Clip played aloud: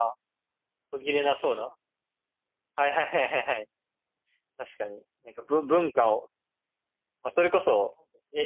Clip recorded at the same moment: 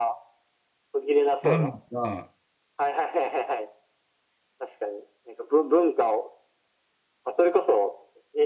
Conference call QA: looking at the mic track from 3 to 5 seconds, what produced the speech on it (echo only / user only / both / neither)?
echo only